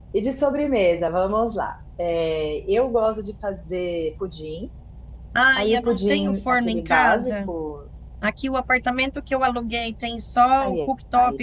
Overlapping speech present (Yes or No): Yes